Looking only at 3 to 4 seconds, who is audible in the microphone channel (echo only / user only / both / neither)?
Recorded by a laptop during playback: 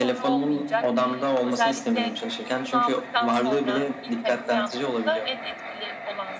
both